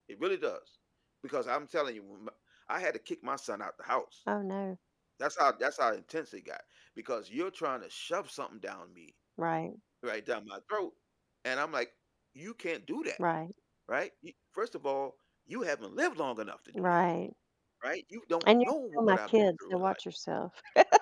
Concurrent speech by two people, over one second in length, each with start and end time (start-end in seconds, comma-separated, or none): 18.5-20.0